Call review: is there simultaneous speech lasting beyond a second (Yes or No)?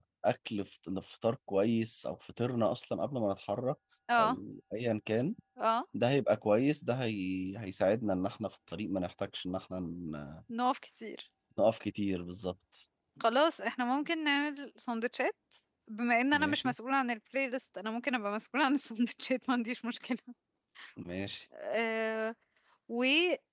No